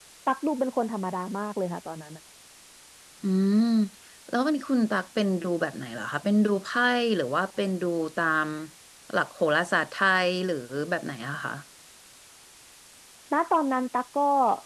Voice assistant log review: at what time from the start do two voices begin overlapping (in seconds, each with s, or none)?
none